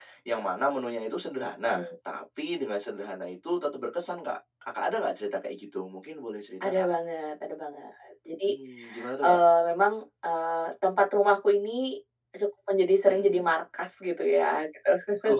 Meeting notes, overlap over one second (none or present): none